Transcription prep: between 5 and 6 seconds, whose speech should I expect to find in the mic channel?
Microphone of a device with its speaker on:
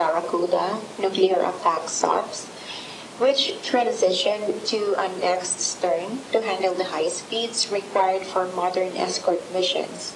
echo only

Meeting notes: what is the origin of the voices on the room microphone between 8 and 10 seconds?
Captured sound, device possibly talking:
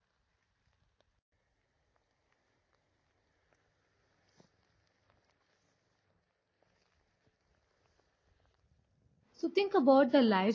user only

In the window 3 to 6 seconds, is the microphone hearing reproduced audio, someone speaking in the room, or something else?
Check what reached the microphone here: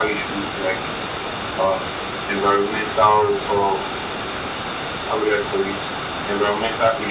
echo only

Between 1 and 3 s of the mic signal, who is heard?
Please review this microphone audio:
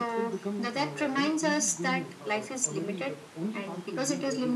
both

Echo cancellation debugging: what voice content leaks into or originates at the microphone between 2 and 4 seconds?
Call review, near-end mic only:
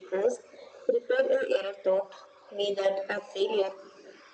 echo only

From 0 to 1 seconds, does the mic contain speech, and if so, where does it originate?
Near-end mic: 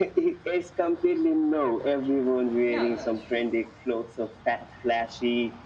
echo only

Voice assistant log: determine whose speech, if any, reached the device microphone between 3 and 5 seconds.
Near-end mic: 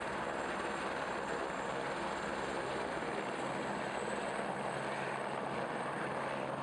neither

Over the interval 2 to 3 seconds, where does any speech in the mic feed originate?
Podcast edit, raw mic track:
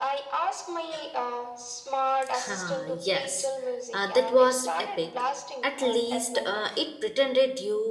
both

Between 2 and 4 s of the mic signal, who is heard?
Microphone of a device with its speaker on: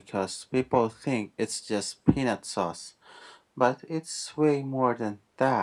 echo only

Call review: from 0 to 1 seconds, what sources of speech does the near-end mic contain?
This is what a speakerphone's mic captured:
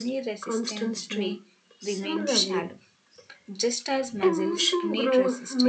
both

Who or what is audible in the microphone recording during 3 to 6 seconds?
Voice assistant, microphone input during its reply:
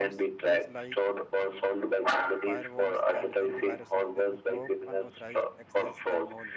both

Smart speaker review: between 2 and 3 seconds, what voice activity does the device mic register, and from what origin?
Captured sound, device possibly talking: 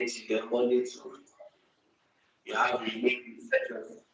echo only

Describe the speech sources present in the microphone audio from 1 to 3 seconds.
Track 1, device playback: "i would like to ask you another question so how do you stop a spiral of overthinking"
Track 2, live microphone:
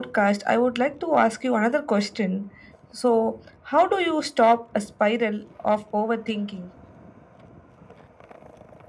echo only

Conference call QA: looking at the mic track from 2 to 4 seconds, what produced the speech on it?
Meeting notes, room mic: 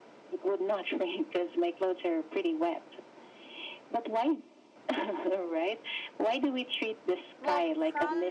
echo only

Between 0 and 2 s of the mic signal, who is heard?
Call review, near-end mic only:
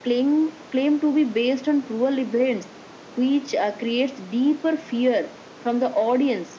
echo only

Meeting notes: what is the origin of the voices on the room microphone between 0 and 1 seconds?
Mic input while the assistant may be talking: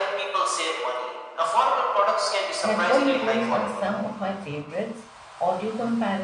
echo only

